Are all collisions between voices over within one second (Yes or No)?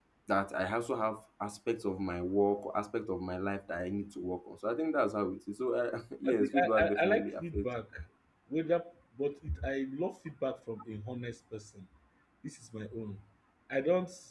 No